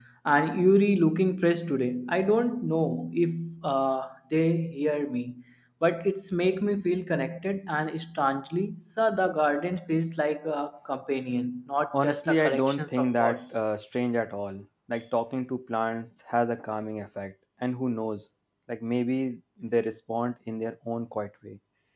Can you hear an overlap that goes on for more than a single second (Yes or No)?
Yes